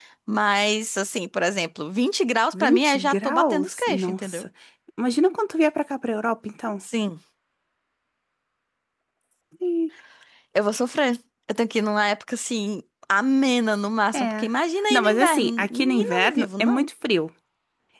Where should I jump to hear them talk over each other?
2.5 s

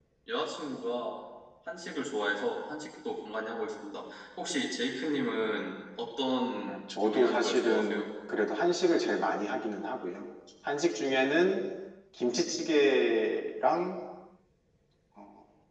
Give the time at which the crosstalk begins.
6.7 s

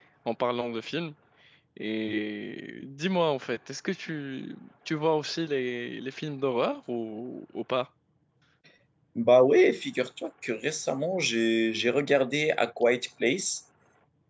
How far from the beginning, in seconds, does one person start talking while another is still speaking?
none

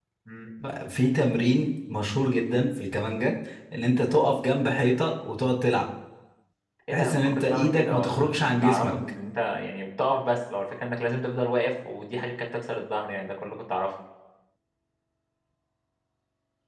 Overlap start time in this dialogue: 6.9 s

